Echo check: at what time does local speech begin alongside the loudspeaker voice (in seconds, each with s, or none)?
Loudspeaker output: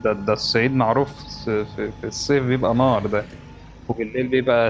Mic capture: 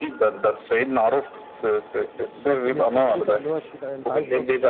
2.3 s